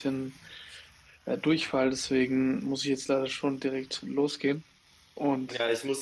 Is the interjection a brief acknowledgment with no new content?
No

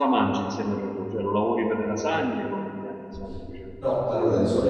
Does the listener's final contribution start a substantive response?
Yes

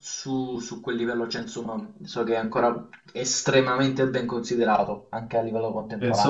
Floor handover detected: Yes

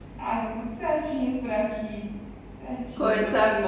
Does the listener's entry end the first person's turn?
Yes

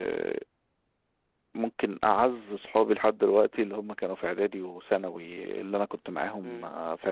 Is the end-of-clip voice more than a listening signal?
No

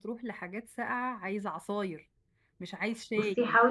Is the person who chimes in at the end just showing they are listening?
No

